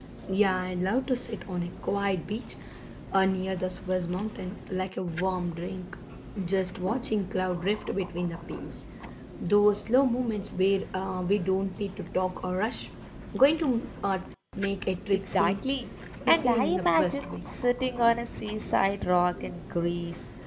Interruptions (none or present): present